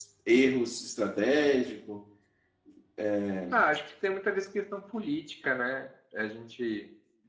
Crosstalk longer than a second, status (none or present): none